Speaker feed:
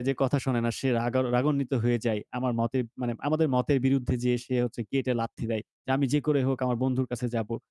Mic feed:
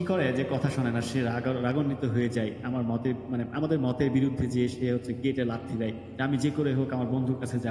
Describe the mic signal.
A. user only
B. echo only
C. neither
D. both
B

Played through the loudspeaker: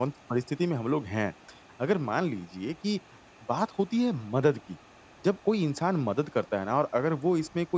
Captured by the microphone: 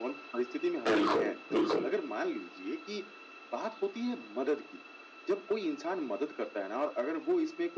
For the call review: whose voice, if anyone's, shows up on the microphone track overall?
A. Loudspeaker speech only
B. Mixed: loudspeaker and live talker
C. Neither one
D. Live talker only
B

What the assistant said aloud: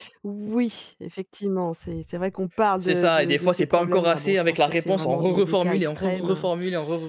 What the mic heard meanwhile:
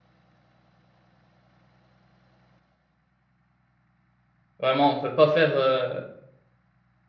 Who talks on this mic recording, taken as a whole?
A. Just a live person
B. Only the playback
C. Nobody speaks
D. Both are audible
A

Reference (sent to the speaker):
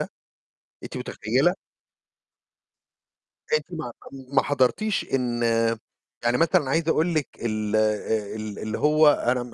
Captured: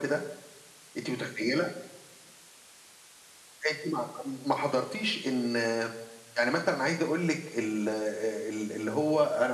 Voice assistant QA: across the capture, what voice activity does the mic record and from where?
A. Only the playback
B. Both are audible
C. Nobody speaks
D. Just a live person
A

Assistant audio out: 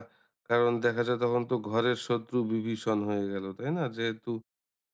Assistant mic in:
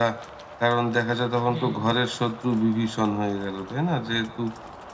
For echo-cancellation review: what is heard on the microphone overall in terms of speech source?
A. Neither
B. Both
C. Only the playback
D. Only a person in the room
B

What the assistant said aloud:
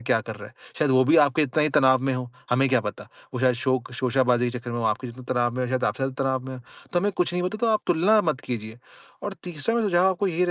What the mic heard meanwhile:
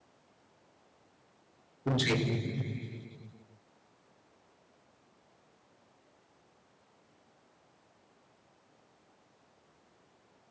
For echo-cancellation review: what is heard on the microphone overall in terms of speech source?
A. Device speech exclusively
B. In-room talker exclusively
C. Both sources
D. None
B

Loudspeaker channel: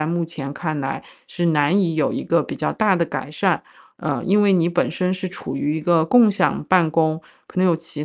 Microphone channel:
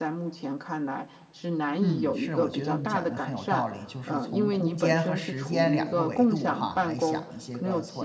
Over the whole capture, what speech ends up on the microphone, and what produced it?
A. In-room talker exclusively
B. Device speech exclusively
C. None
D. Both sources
D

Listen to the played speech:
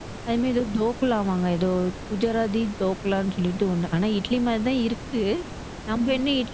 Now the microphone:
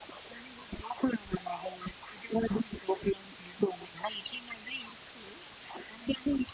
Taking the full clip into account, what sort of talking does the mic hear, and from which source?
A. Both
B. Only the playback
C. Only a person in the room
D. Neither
B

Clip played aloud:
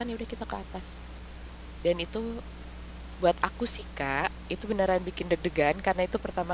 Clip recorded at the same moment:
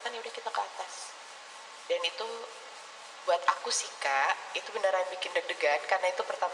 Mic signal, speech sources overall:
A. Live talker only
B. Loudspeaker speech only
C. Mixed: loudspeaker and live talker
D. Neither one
B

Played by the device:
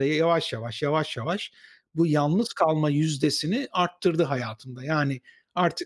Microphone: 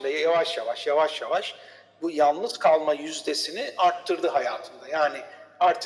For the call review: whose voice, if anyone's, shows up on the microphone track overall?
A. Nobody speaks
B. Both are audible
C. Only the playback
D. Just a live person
C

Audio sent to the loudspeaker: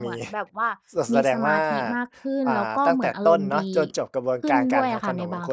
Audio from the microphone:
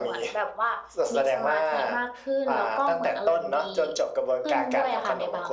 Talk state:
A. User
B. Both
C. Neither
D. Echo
D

